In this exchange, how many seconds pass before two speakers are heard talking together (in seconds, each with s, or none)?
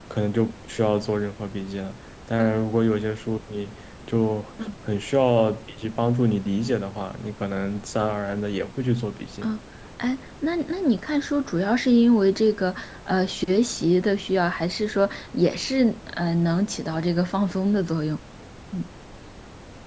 none